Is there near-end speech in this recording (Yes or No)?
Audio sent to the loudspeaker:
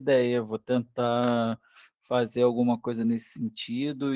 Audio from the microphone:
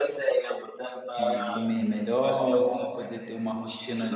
Yes